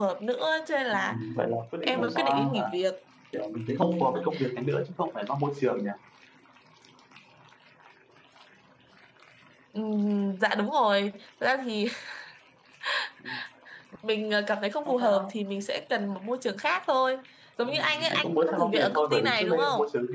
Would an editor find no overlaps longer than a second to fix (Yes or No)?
No